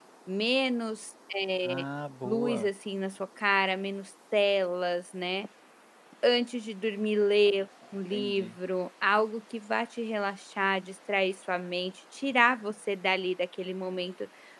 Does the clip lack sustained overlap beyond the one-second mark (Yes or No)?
Yes